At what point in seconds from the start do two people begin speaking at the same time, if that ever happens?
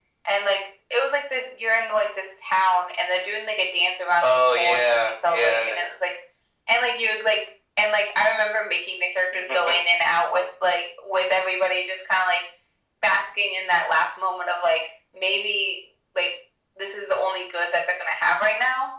4 s

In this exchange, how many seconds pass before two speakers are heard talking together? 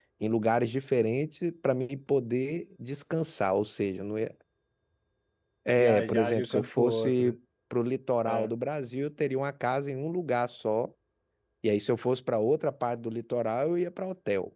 6 s

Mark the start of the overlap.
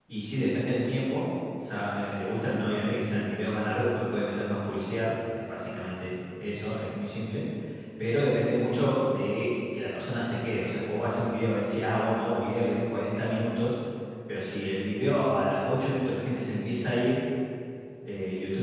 none

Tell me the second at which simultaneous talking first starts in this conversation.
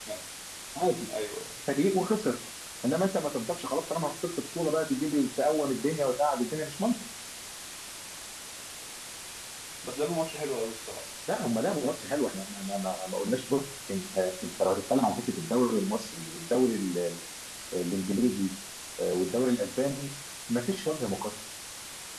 none

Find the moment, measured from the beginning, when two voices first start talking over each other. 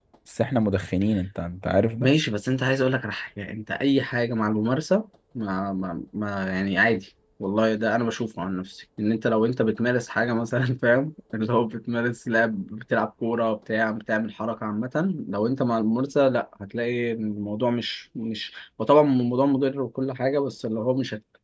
none

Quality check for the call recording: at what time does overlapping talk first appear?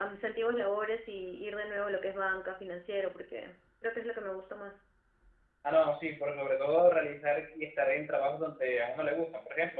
none

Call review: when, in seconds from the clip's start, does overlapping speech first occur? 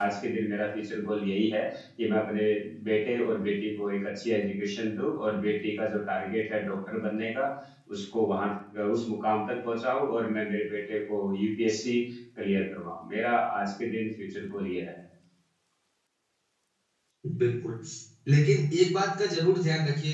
none

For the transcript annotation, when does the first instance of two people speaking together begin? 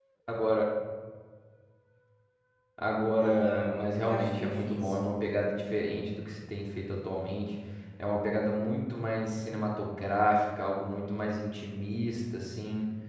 3 s

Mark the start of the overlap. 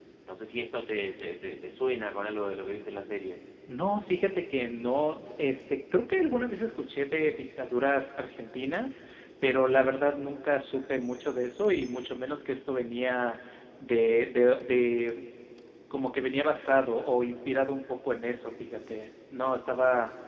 none

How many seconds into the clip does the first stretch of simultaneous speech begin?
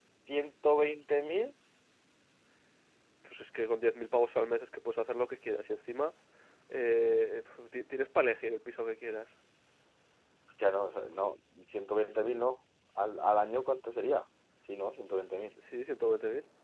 none

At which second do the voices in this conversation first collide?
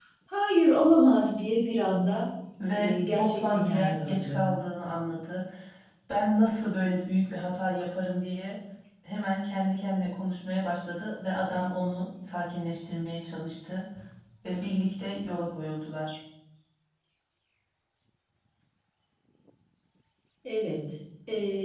3 s

